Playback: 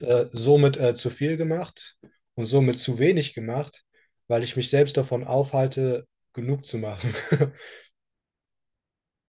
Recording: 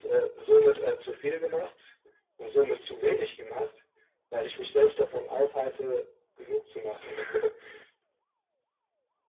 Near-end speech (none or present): none